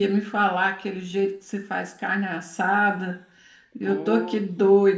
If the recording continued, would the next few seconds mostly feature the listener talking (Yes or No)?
No